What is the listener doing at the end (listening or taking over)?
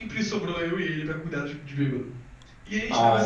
listening